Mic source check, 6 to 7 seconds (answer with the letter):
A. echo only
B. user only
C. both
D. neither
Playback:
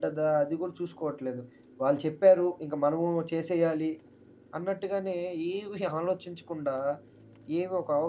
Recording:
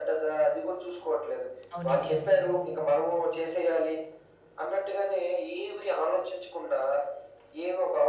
A